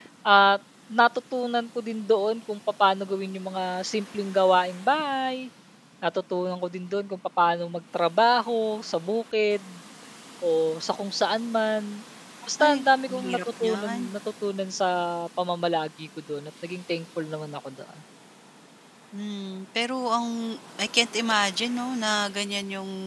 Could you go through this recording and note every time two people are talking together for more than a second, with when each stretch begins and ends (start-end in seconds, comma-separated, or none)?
12.6-14.0